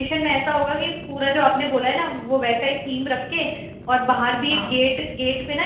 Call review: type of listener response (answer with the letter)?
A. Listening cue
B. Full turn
A